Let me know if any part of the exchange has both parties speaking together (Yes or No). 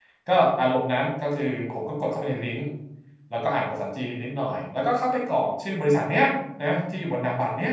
No